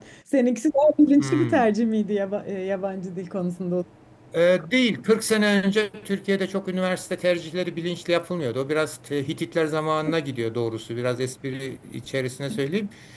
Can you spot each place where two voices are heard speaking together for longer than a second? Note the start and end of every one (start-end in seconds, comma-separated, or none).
none